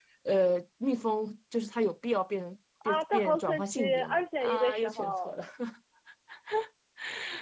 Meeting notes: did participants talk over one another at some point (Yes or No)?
Yes